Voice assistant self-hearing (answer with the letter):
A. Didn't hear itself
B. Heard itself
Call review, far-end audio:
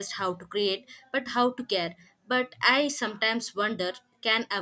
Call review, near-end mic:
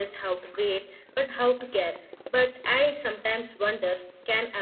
B